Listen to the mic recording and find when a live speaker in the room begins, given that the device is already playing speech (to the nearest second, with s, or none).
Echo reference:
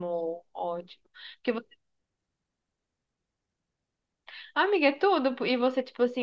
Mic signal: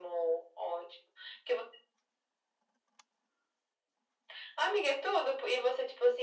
none